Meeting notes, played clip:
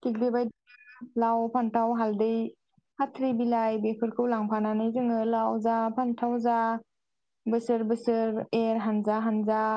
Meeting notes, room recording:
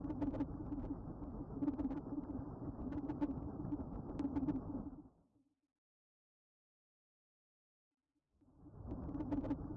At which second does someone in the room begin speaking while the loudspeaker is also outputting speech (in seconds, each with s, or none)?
none